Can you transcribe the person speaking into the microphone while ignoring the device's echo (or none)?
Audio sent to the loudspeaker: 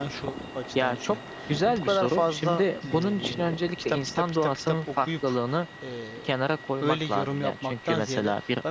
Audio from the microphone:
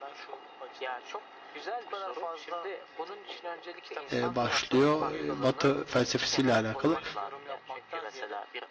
e, başlıyor. E, Batı felsefesiyle alakalı.